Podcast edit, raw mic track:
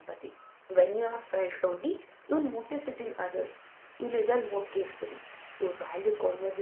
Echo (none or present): none